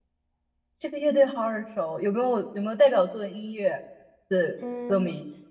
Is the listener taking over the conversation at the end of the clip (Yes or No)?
Yes